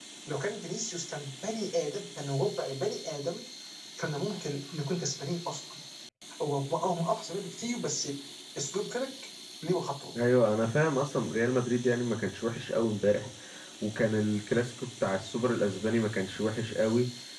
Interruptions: none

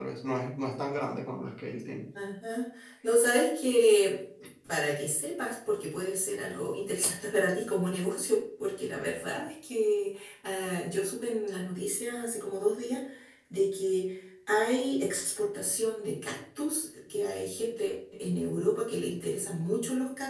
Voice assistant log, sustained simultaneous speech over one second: none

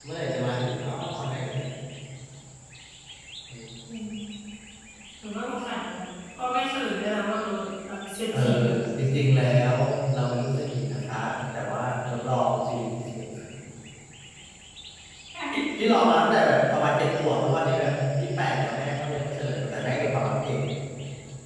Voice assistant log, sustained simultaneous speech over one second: none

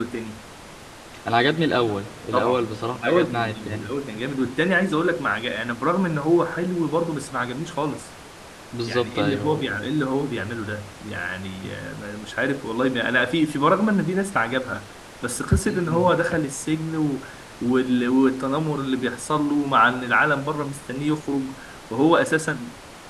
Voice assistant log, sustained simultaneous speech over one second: present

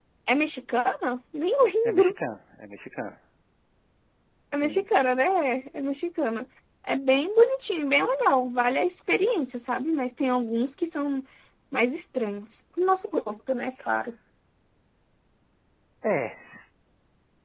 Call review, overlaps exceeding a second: none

